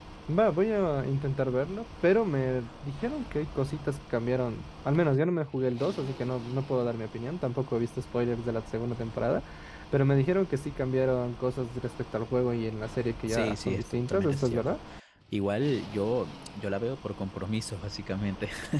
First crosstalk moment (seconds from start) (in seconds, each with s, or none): 13.3 s